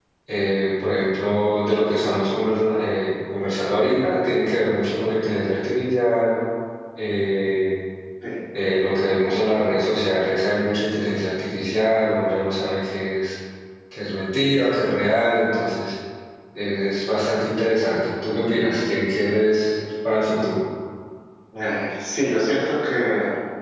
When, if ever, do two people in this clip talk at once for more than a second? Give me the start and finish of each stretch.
none

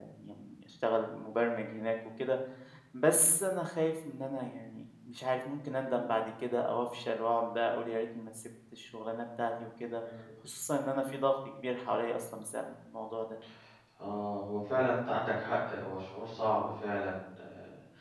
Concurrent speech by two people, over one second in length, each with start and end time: none

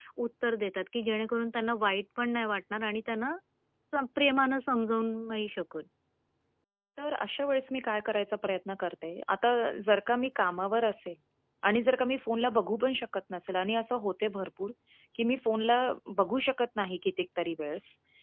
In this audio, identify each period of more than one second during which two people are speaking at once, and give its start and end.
none

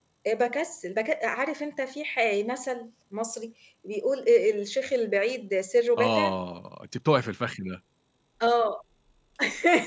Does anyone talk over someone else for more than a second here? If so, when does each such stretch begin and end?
none

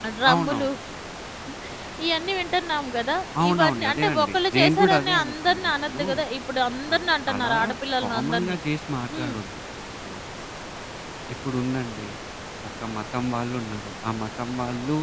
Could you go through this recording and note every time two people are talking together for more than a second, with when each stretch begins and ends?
3.5-6.0

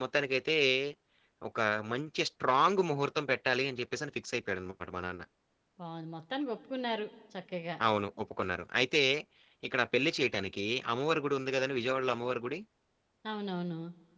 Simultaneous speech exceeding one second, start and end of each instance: none

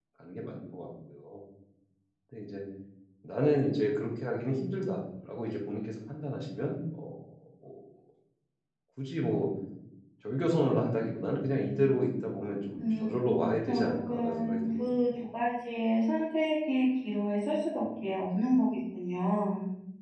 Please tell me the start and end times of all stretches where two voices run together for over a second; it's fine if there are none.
12.8-15.1

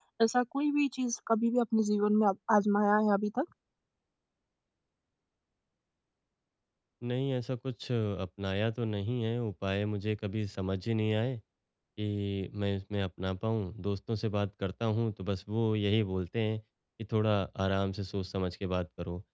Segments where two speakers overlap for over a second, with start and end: none

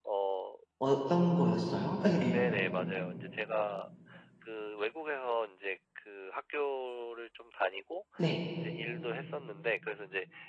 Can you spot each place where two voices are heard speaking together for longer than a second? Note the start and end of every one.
none

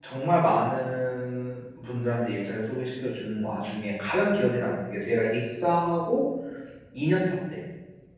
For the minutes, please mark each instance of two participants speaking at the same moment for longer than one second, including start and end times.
none

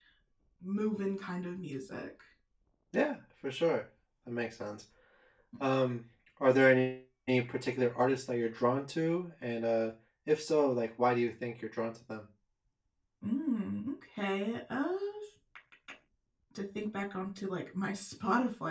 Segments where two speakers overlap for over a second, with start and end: none

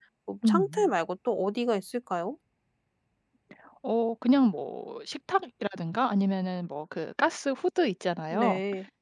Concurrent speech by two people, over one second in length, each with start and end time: none

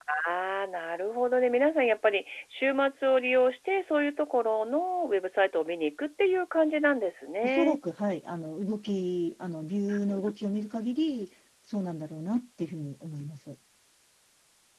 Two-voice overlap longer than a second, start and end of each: none

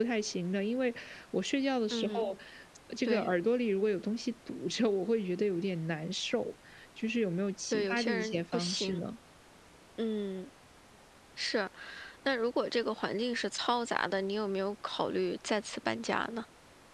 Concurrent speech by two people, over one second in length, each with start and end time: 7.7-9.0

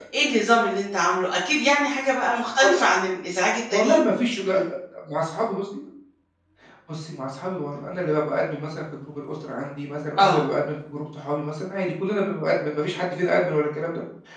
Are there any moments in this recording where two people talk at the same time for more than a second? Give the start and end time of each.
none

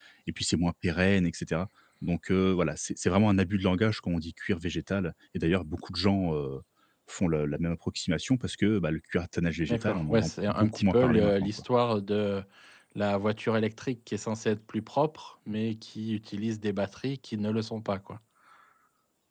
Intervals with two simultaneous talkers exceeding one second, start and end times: 9.7-11.5

